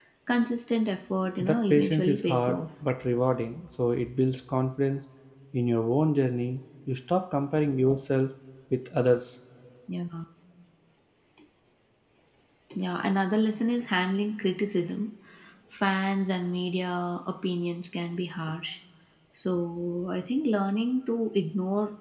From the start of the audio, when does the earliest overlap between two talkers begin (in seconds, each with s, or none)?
1.4 s